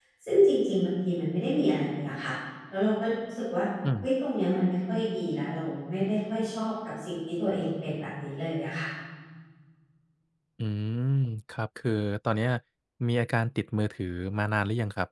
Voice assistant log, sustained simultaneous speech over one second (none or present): none